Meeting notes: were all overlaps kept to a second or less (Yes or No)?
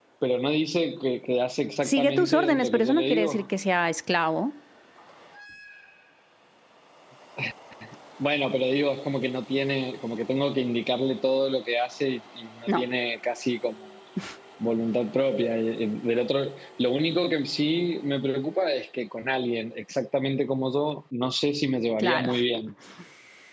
No